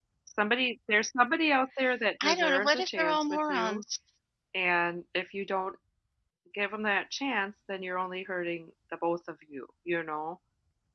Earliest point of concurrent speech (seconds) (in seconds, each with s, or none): 2.2 s